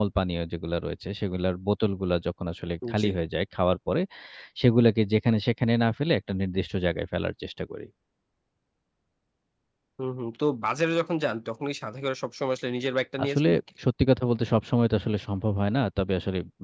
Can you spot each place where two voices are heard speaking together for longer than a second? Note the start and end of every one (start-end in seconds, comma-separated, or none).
none